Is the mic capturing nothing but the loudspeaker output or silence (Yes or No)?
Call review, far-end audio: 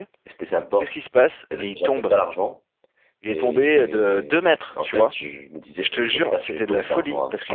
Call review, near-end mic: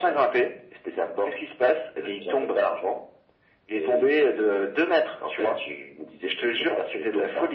Yes